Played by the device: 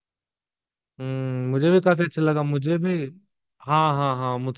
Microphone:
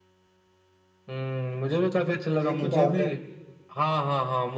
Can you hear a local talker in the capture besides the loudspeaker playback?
Yes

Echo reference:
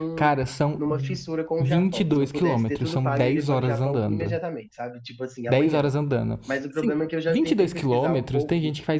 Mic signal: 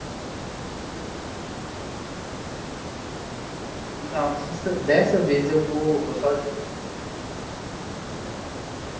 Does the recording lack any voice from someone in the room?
No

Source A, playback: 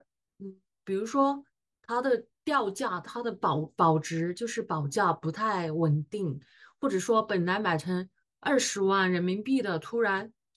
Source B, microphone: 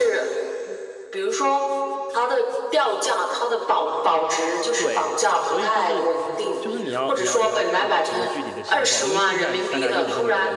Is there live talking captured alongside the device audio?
Yes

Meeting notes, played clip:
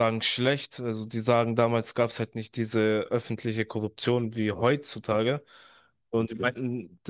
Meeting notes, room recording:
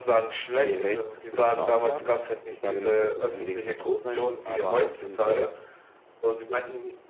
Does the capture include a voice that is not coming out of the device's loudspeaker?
Yes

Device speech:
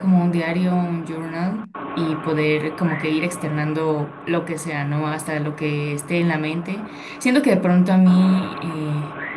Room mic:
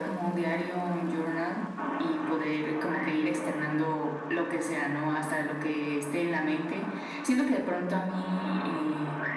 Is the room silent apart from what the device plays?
Yes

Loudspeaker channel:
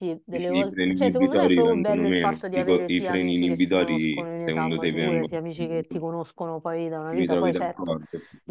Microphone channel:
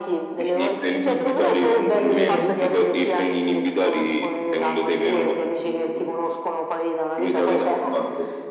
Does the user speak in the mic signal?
Yes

